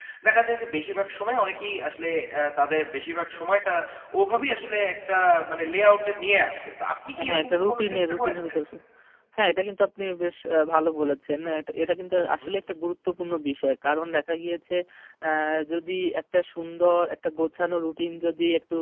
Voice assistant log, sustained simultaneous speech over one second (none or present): present